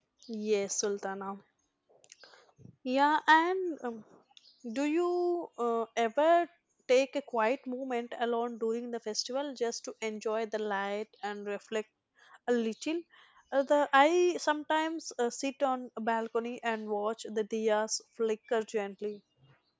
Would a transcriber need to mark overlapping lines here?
No

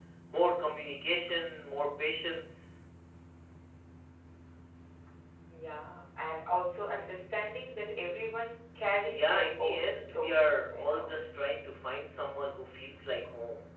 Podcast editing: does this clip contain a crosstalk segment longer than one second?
Yes, from 9.1 s

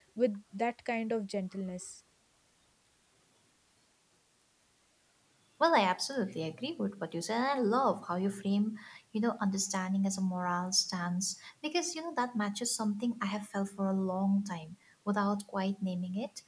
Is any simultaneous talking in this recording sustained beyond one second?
No

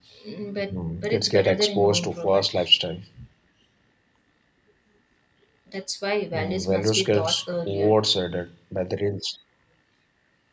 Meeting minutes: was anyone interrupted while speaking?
Yes, from 0.7 s

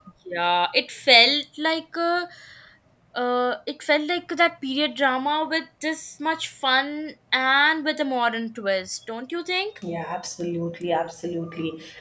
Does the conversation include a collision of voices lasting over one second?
No

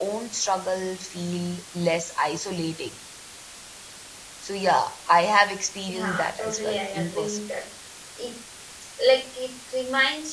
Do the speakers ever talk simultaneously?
Yes, from 5.9 s

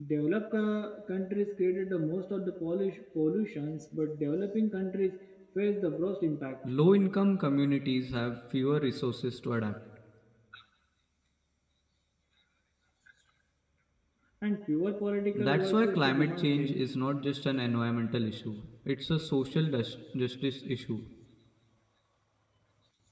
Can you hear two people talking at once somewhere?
Yes, from 15.3 s

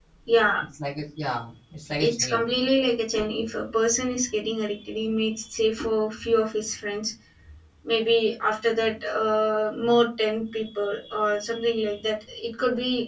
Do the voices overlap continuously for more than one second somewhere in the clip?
No

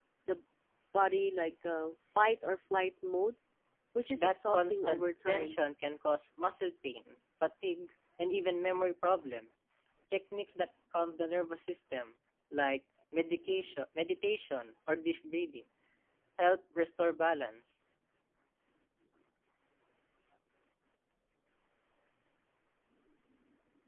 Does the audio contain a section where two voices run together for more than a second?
Yes, from 4.2 s

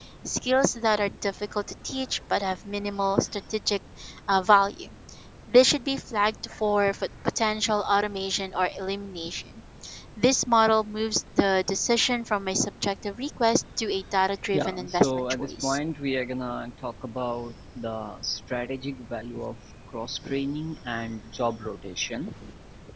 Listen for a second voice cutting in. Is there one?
Yes, from 14.5 s

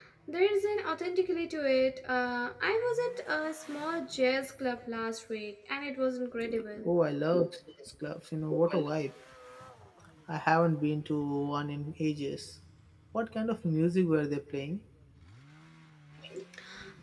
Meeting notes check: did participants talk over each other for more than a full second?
No

